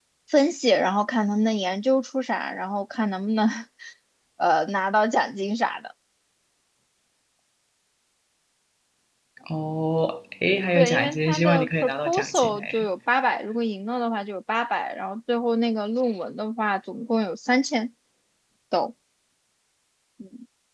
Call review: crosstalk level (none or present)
present